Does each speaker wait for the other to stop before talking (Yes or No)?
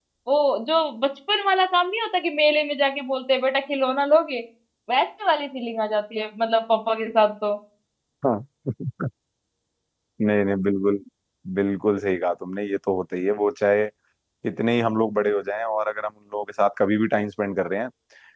Yes